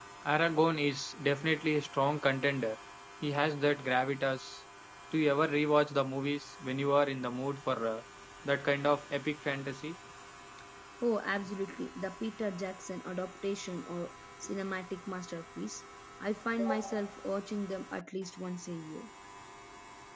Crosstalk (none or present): none